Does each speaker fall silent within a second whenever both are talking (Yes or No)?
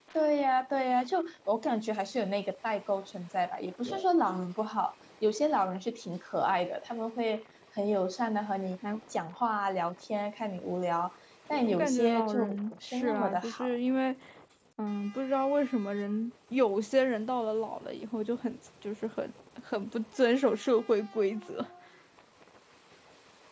No